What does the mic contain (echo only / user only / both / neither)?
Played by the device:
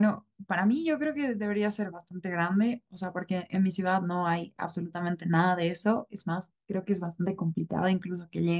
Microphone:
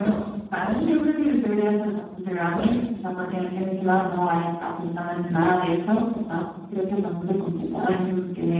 both